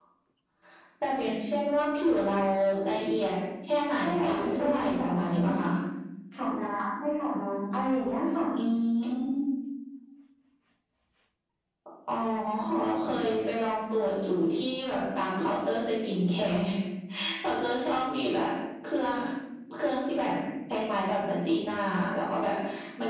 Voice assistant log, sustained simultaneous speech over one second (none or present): present